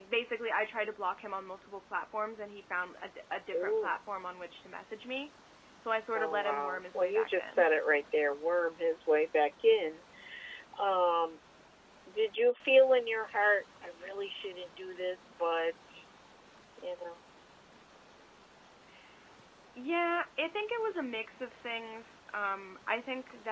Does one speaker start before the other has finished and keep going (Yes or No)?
Yes